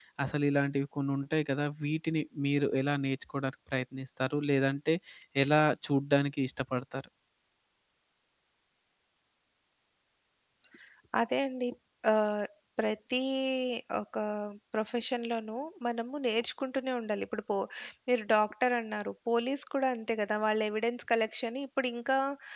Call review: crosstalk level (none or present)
none